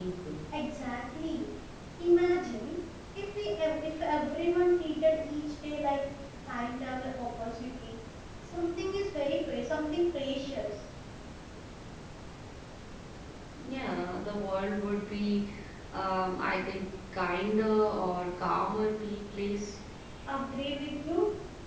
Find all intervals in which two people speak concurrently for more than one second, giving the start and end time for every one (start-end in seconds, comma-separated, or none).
none